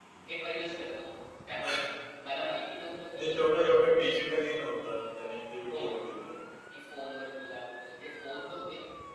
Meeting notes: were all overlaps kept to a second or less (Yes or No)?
Yes